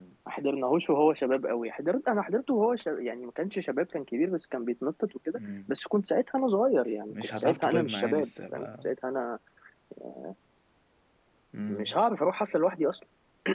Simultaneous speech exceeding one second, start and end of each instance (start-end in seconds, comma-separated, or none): 7.1-8.9